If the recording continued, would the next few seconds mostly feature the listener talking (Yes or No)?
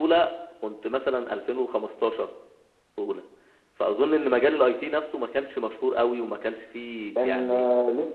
Yes